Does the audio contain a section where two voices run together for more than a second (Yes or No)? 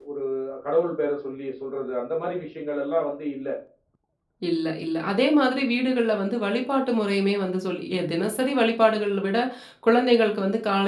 No